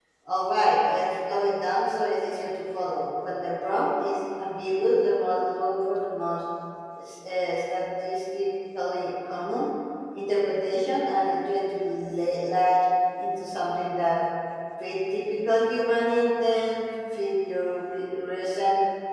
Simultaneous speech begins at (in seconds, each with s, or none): none